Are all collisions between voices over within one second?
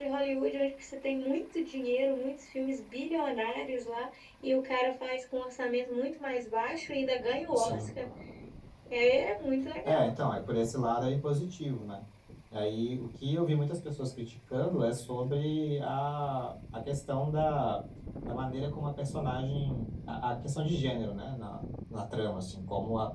Yes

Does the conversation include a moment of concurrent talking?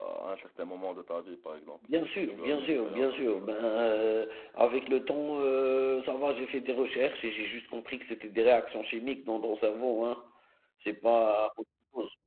Yes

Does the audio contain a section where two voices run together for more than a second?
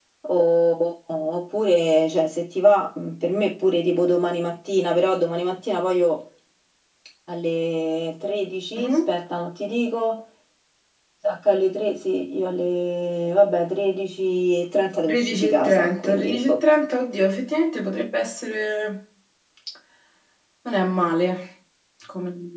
Yes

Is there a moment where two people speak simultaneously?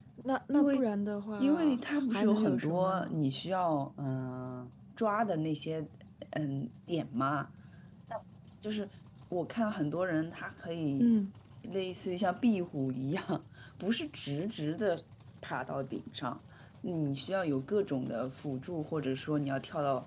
Yes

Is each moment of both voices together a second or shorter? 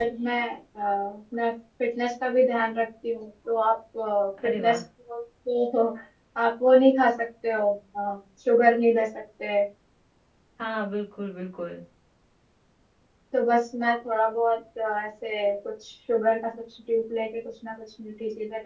Yes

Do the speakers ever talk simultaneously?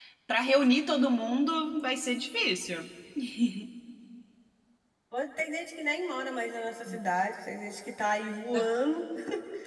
No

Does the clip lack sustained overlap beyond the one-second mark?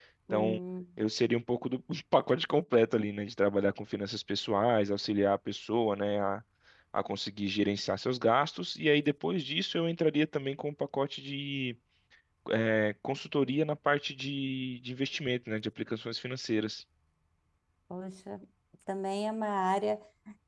Yes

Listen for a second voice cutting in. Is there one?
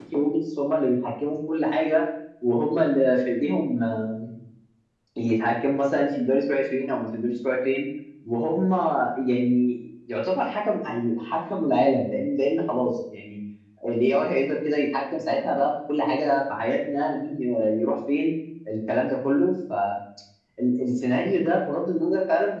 No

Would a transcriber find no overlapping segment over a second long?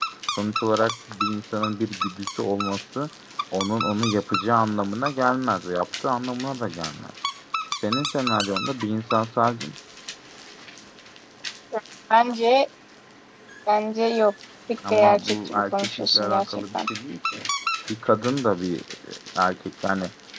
No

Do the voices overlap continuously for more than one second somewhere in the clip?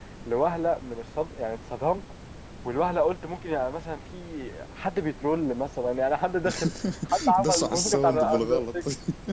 Yes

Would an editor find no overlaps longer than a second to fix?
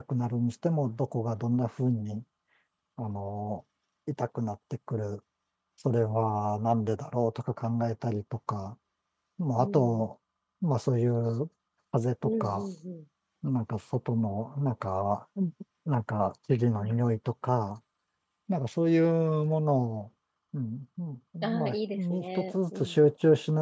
No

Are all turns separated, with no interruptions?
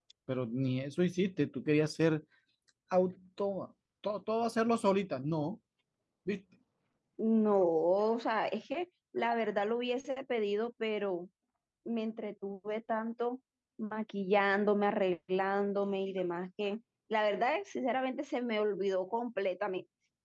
Yes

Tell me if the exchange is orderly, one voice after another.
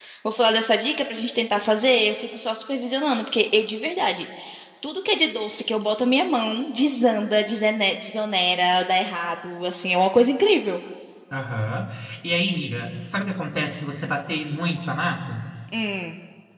Yes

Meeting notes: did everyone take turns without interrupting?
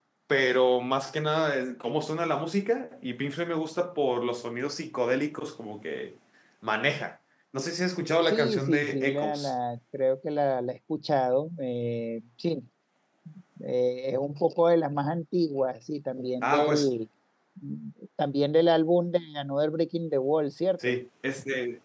No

